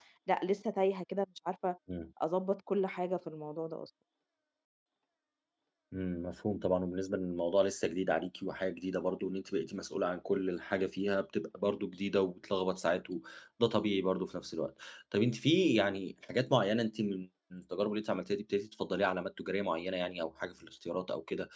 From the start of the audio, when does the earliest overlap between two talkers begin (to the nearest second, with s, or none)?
none